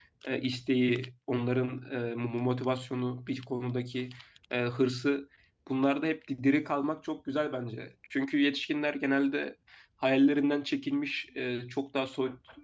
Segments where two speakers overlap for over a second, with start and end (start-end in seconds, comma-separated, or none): none